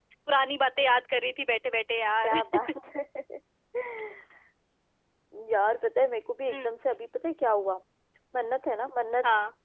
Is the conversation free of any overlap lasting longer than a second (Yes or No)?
Yes